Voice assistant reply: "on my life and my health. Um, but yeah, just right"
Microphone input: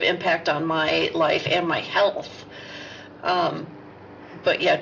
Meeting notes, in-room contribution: none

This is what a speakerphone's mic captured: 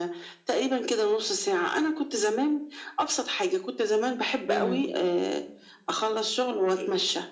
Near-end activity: present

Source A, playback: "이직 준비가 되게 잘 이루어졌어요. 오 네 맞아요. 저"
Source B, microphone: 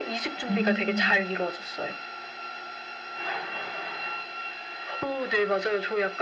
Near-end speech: present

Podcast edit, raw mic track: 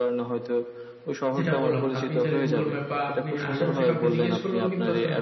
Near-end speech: present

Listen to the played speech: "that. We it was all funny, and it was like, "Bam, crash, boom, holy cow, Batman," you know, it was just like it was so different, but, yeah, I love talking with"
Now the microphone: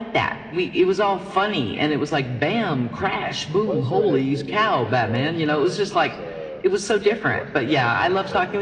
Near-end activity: present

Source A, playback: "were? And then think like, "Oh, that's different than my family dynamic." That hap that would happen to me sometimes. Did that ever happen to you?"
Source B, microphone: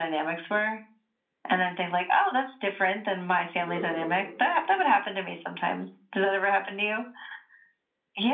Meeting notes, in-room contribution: present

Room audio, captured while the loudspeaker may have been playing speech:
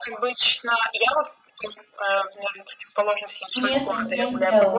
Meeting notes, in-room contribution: present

